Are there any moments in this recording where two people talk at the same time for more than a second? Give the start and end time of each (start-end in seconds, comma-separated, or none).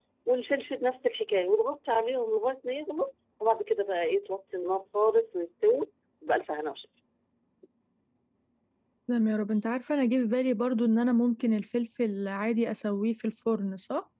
none